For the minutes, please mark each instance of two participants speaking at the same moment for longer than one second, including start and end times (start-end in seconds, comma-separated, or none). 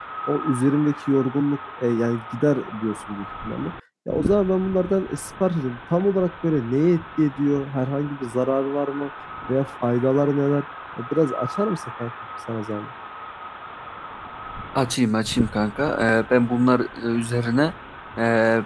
none